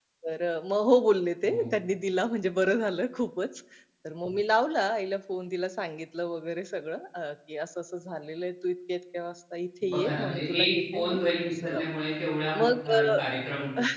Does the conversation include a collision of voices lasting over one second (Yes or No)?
Yes